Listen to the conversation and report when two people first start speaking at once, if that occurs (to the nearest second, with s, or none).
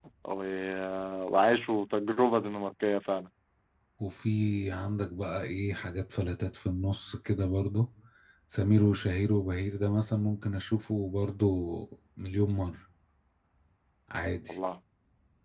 none